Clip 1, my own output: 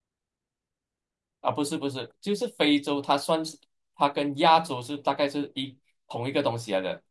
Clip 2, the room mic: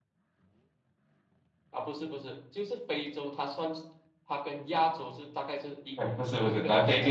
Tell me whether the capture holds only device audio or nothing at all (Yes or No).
No